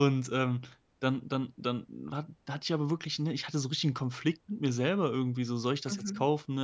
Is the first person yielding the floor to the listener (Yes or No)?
No